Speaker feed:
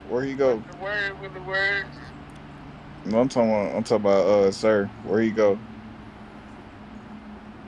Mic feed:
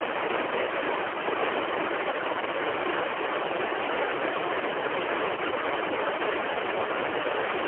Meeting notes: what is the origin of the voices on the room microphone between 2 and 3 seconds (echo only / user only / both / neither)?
neither